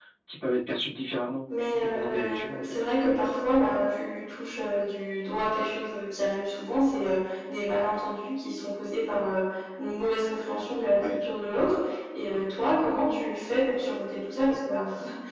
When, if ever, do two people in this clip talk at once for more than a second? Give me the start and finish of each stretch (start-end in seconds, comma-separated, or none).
1.5-2.8